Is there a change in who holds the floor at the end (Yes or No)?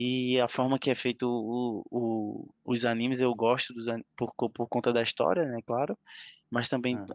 No